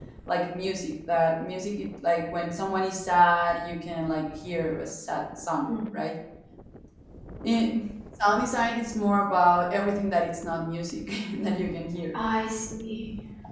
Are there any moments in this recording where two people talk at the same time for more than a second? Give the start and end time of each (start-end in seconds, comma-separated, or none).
none